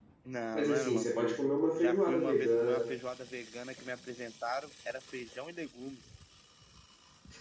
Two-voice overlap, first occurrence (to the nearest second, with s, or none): 1 s